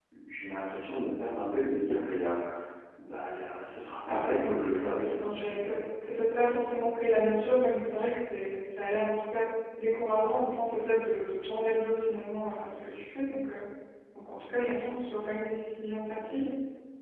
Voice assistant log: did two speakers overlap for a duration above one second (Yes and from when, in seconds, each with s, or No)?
Yes, from 4.3 s